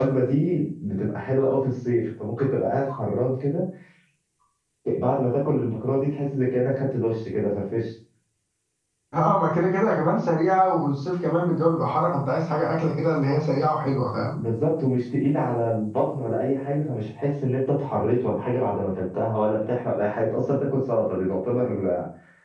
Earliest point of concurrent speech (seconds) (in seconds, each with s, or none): none